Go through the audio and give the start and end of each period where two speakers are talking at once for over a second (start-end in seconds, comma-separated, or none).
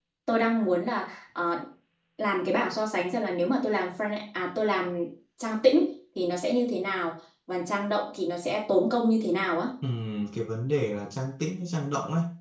none